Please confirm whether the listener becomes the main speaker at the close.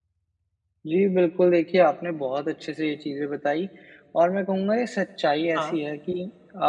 No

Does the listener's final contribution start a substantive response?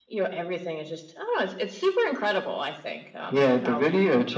Yes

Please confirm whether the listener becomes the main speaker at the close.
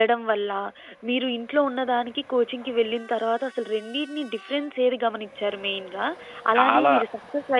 No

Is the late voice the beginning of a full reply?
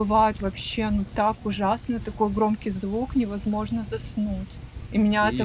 No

